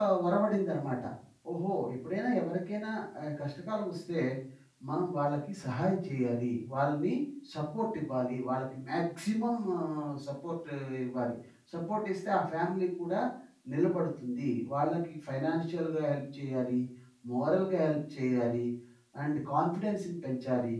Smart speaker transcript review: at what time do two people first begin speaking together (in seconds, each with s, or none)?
none